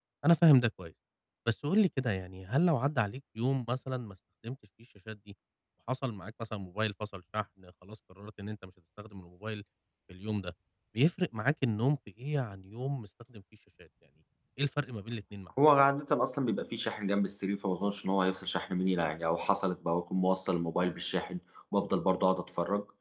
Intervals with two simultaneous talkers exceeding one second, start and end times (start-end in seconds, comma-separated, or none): none